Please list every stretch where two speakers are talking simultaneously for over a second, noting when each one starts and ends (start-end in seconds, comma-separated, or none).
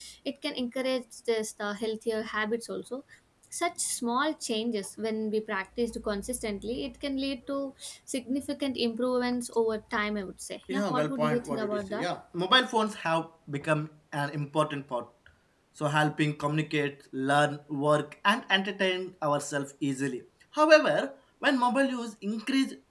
10.7-12.1